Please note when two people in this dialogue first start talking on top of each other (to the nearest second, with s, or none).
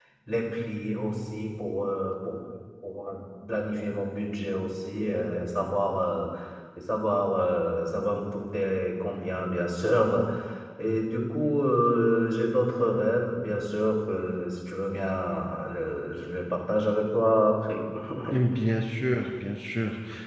none